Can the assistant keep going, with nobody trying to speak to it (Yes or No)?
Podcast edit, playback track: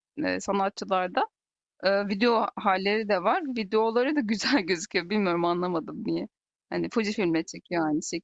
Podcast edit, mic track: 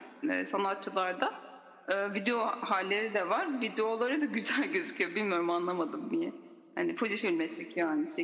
Yes